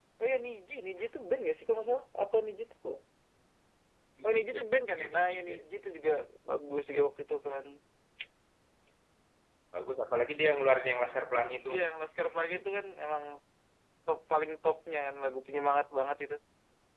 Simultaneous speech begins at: 4.2 s

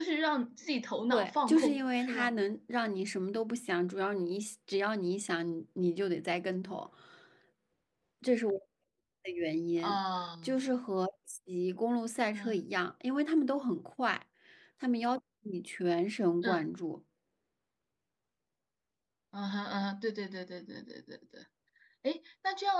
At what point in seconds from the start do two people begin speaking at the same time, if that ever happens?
1.1 s

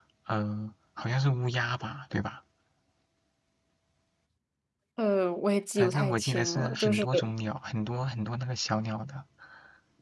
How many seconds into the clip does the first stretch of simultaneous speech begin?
5.8 s

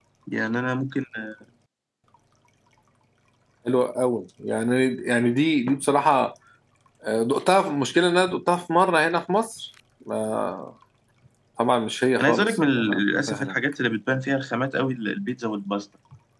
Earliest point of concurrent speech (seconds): 12.2 s

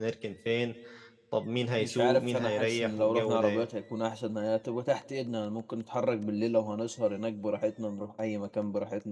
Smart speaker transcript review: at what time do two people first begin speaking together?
1.8 s

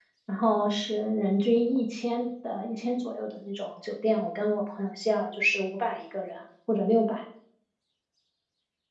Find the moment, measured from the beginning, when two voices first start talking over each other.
none

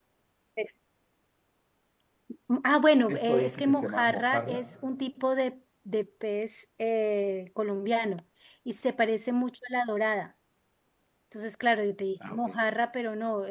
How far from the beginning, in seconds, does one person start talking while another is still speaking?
3.1 s

